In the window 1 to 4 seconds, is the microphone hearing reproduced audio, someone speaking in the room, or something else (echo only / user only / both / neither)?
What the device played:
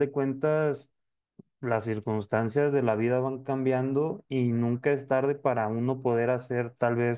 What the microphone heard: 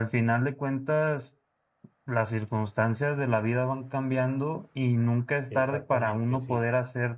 echo only